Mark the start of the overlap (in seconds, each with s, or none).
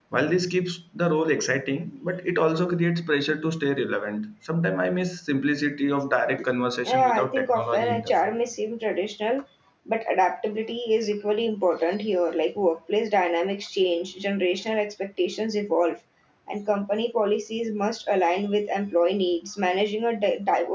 6.8 s